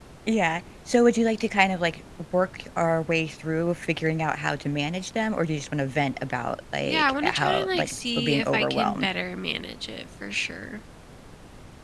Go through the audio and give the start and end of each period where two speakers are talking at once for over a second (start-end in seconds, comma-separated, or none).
6.8-9.1